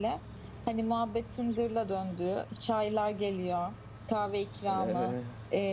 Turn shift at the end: No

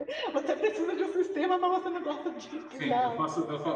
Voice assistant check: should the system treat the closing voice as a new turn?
Yes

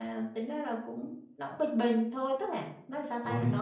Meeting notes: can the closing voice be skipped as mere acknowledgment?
Yes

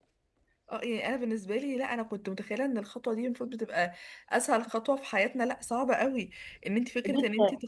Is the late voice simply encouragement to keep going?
Yes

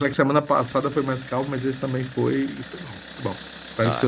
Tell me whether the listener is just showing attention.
No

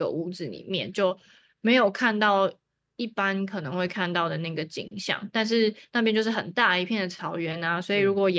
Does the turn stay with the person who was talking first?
Yes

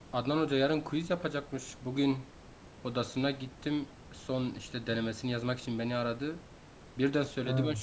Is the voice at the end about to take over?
No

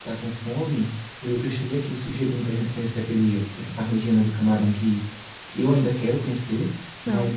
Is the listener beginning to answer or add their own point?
No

